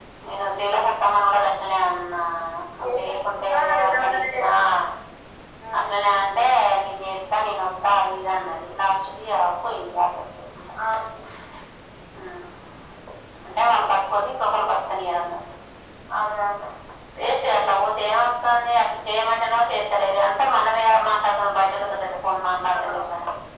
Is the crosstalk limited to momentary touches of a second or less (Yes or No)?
No